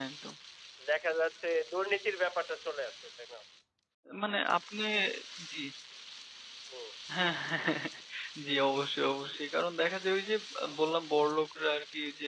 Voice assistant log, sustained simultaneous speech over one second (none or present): none